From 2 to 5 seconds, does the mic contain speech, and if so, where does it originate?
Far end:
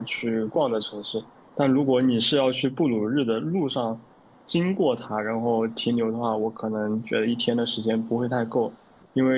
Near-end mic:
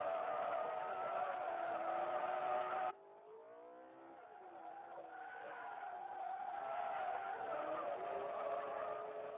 neither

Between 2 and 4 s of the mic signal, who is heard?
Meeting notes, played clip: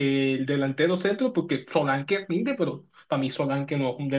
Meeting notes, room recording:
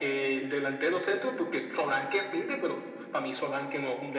echo only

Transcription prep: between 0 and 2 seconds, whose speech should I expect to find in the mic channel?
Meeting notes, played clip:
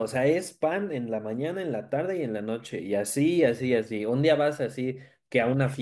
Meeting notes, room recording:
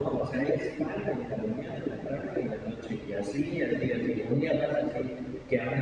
echo only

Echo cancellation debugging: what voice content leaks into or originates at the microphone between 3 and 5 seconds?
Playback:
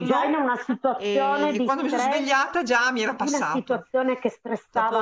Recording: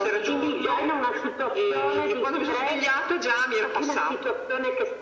echo only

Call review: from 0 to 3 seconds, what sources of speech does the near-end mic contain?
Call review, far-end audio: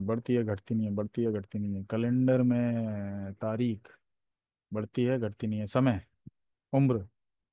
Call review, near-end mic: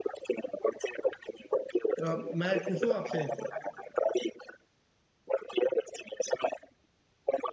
both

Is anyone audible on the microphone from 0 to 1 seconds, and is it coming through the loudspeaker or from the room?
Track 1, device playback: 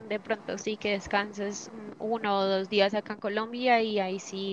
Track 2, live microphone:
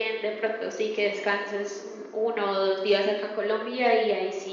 echo only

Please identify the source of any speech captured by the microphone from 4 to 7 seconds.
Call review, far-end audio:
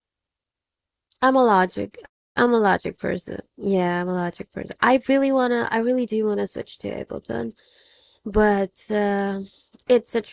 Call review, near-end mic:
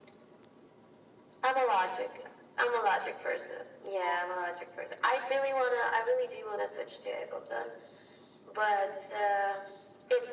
echo only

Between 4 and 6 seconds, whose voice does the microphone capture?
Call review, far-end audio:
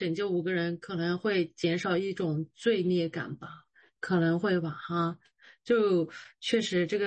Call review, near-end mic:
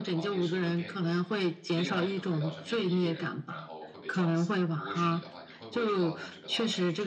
both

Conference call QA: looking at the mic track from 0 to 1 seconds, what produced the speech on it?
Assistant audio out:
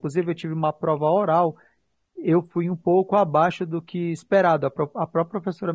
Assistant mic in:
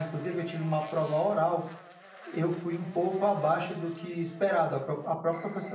echo only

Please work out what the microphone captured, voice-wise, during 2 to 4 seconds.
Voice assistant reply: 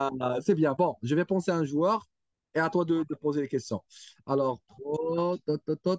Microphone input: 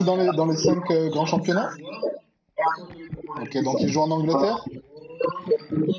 both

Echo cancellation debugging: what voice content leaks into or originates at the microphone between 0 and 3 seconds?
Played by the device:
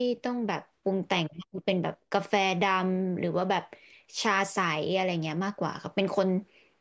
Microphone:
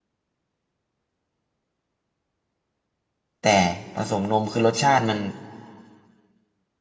neither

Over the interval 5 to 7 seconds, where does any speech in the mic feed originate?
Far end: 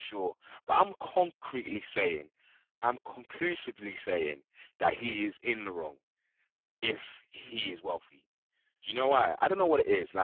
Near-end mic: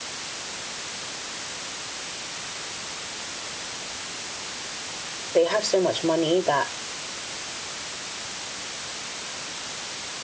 user only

